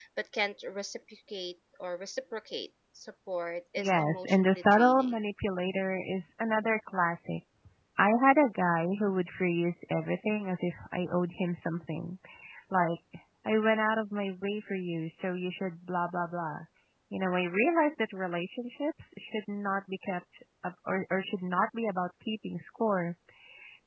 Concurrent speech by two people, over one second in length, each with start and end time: 3.8-5.2

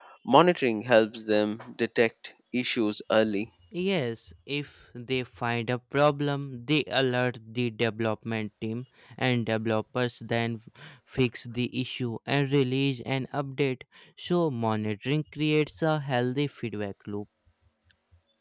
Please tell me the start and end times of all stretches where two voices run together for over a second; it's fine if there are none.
none

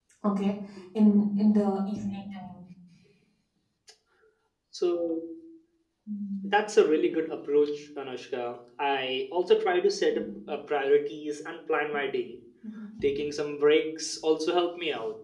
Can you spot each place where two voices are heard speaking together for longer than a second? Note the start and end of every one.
none

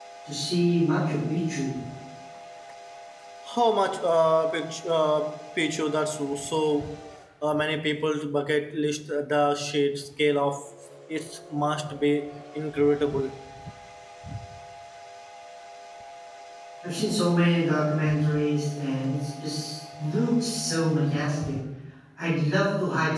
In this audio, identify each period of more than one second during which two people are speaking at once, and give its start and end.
none

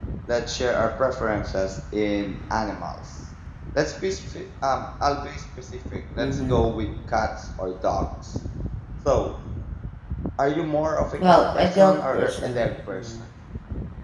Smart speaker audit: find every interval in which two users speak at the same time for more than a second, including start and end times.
11.2-13.1

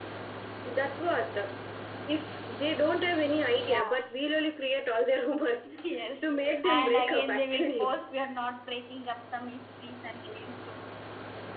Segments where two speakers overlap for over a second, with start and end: 6.7-7.9

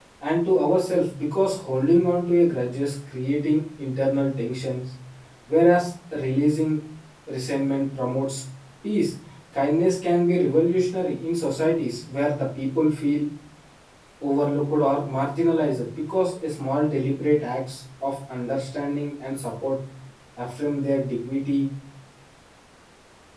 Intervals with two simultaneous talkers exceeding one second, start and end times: none

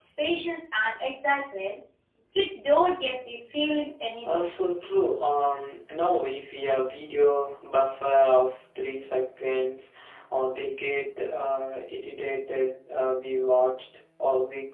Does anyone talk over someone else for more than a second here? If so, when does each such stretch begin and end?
none

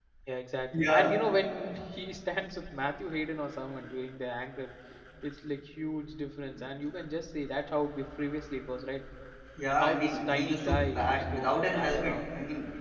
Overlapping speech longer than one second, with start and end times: 9.7-12.2

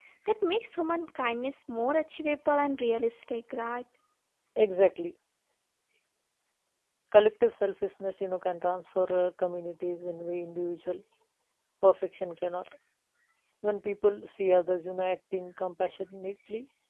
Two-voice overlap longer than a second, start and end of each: none

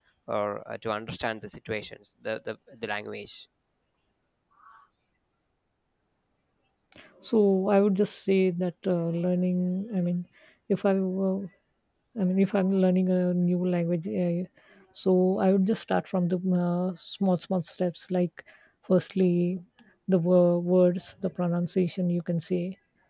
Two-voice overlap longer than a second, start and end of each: none

